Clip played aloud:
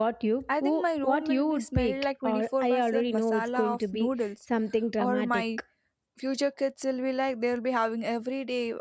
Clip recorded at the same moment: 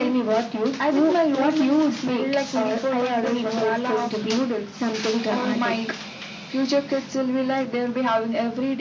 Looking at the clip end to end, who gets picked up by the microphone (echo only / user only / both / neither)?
echo only